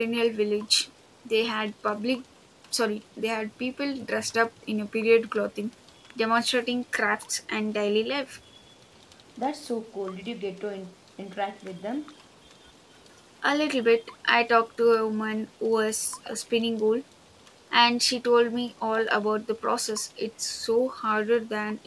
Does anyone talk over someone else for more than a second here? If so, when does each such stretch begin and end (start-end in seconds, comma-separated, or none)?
none